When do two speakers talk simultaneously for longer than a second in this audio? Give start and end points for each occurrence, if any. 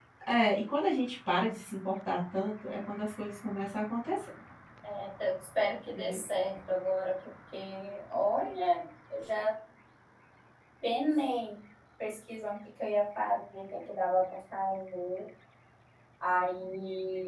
none

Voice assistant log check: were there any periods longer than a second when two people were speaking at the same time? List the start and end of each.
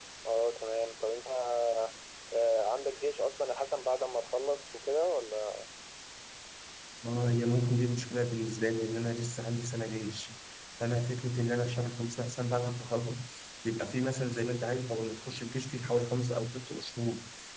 none

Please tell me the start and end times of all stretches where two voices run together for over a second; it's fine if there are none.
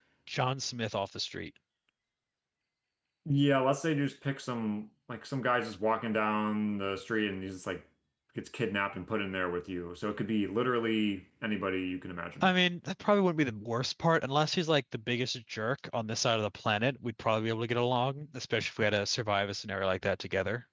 none

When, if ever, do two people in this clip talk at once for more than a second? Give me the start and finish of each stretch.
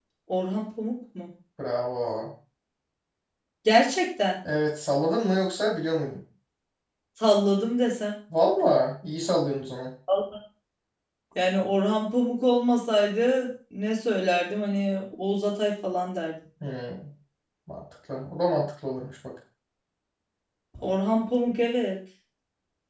none

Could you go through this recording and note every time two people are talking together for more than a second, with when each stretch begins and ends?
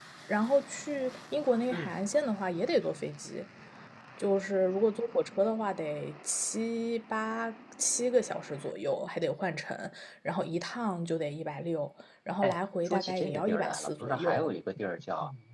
12.4-14.5

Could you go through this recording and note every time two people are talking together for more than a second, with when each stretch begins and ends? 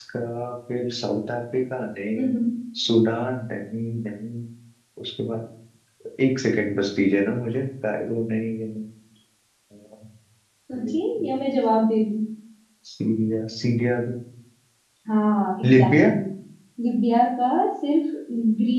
none

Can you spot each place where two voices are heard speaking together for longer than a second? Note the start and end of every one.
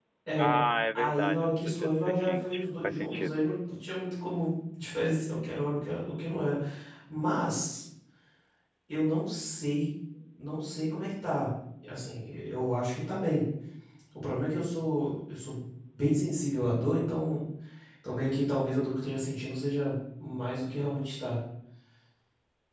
1.0-3.4

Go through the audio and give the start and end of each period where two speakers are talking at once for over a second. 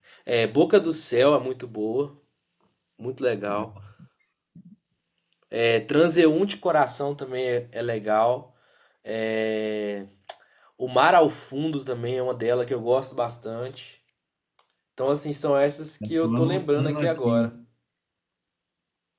16.1-17.5

